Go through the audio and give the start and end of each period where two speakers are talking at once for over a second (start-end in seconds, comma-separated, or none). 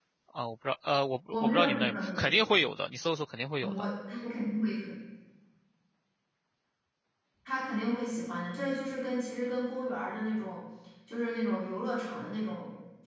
1.3-2.6